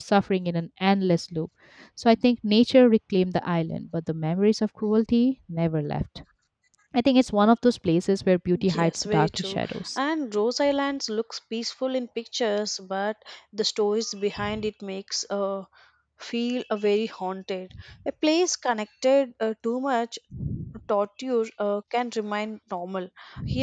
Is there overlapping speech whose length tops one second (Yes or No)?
Yes